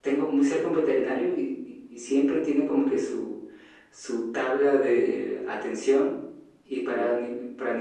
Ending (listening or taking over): listening